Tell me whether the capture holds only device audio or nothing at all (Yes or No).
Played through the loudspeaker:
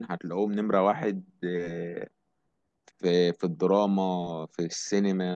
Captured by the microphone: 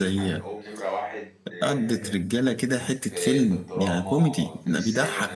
No